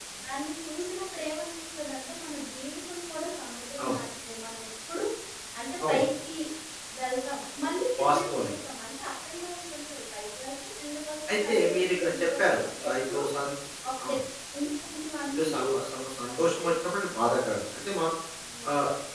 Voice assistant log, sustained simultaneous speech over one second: present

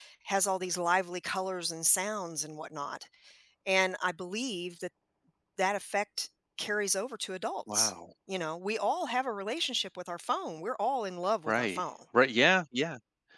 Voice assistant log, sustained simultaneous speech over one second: none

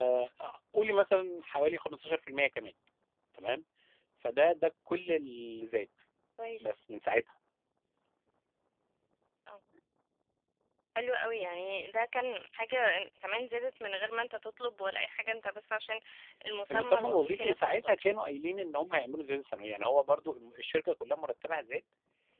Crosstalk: present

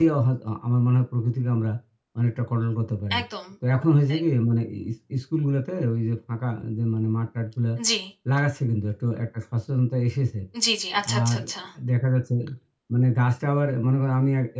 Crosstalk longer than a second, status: none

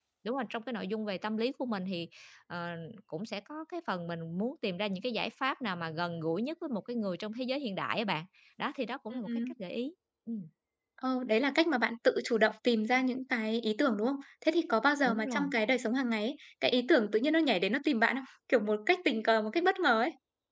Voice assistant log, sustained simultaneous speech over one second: none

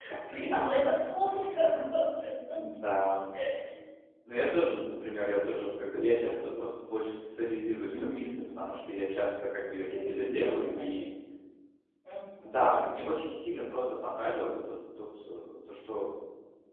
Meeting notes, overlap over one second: present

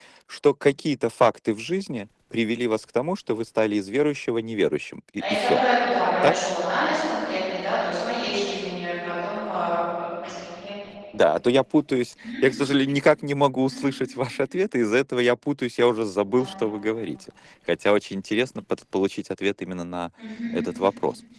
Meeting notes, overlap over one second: none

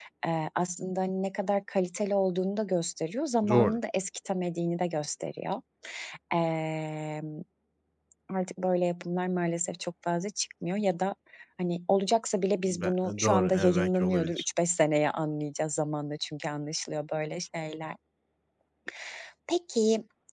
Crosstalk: present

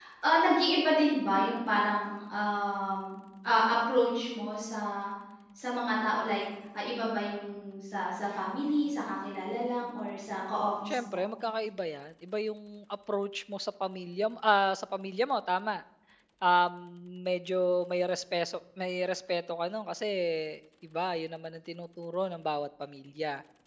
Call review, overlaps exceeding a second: none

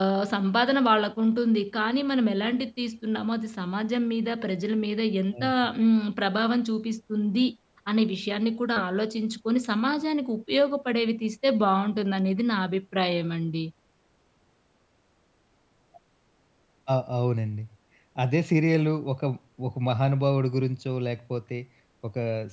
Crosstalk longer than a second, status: none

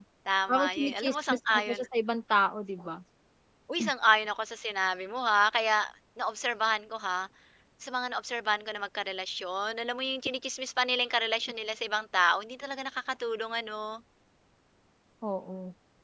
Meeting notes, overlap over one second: present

